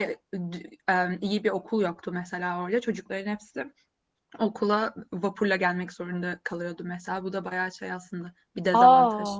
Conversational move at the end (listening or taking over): taking over